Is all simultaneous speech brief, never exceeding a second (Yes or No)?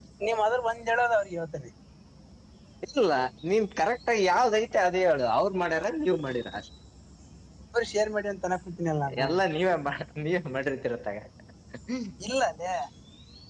Yes